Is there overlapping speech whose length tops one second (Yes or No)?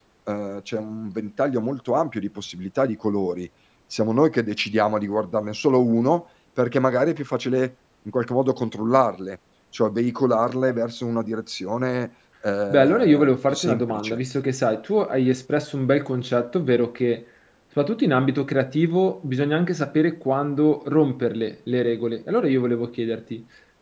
Yes